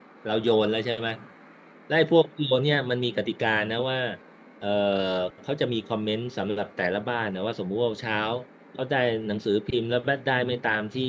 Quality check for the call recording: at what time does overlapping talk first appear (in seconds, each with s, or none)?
none